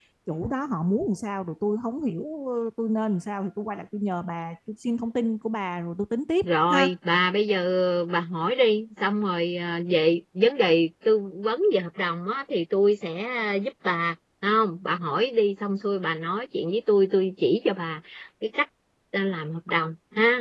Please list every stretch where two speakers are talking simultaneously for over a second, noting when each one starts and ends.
none

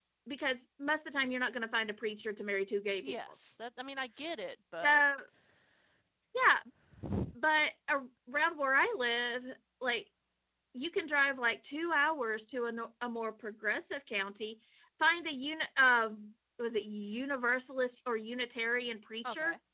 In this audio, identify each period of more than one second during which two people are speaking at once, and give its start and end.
none

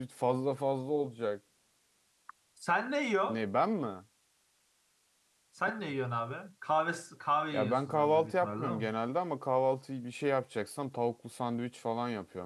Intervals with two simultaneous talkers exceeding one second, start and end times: 7.5-8.9

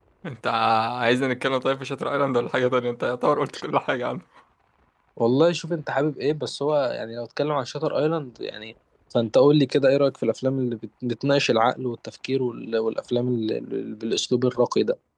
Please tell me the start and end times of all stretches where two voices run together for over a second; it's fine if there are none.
none

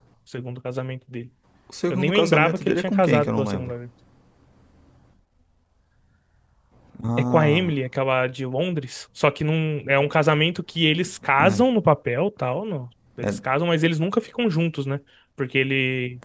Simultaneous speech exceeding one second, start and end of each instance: 1.9-3.8

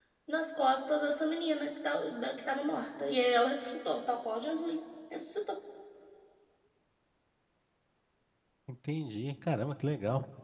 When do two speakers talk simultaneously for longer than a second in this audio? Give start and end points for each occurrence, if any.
none

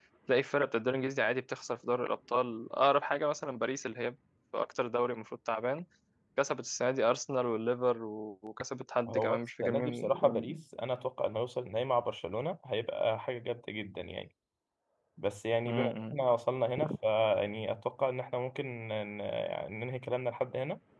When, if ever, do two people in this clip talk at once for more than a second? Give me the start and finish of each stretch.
9.1-10.5

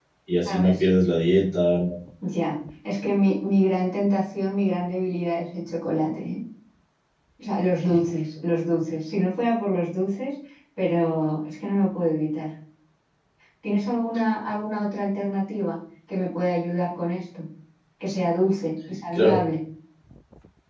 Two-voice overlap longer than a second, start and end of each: none

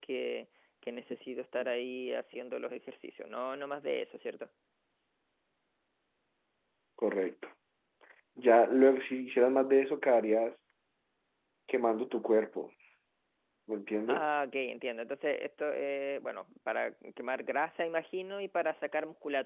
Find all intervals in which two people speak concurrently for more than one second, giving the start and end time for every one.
none

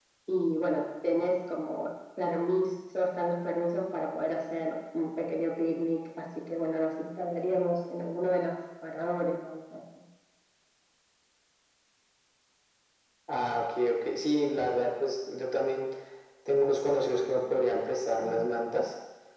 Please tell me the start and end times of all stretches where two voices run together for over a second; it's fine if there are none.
none

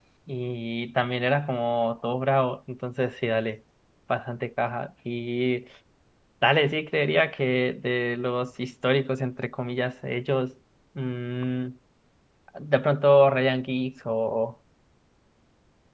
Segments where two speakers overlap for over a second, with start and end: none

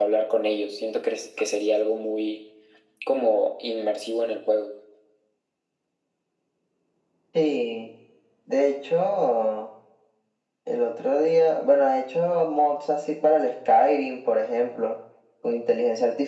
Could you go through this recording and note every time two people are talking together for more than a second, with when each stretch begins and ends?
none

